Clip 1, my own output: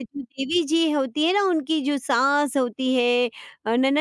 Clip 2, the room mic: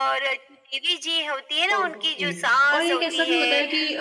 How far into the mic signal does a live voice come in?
1.7 s

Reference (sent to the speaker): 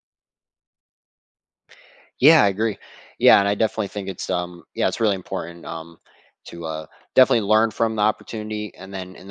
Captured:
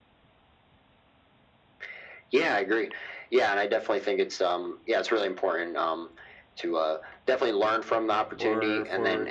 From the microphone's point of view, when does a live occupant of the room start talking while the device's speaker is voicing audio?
8.4 s

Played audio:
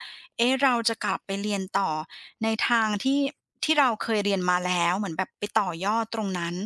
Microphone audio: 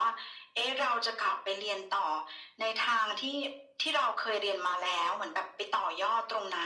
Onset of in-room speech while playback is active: none

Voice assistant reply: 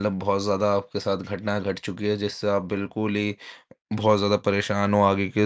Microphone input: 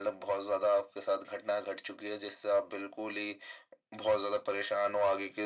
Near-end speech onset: none

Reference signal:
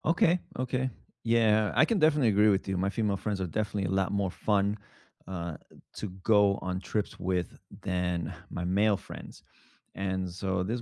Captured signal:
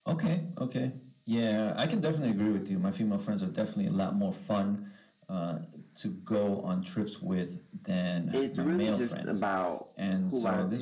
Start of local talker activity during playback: 8.3 s

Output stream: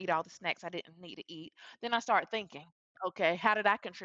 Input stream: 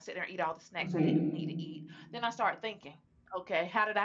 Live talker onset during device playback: 0.8 s

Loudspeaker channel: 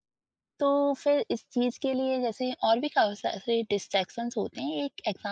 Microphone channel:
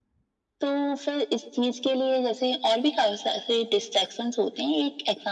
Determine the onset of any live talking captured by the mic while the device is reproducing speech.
none

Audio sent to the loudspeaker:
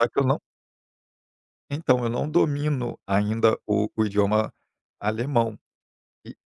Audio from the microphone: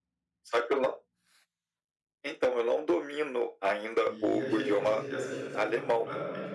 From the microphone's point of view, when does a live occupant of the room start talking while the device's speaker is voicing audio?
4.0 s

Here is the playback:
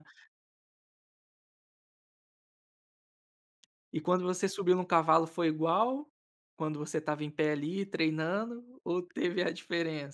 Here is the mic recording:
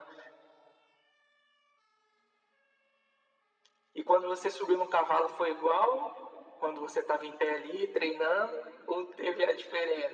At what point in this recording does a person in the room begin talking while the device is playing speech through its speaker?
none

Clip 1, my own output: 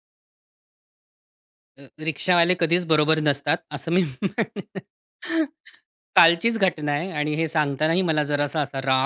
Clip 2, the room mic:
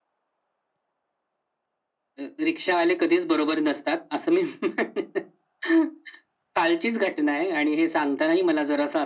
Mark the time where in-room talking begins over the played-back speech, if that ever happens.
none

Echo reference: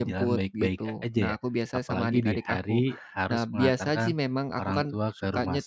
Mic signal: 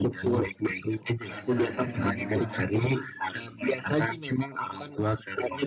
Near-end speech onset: 1.3 s

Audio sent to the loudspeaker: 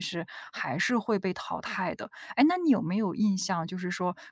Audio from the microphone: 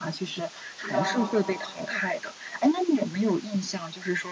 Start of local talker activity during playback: 0.8 s

